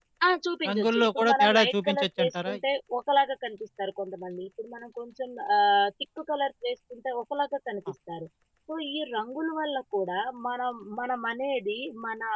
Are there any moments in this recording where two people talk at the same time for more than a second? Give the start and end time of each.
0.7-2.6

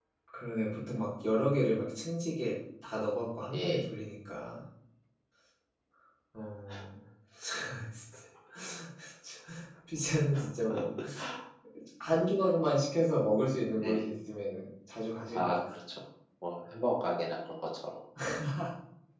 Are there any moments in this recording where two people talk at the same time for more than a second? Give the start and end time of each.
none

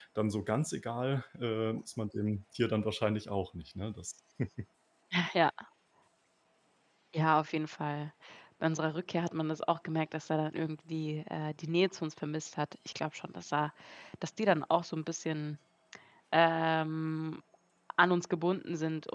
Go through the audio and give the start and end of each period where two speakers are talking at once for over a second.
none

